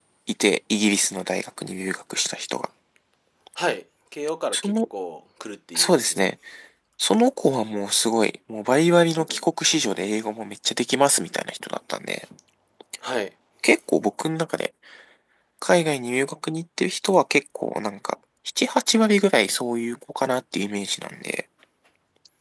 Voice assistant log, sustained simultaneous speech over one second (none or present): none